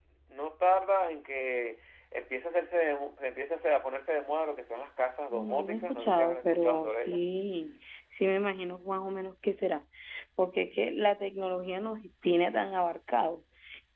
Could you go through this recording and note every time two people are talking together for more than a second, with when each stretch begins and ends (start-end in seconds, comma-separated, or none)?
5.3-7.2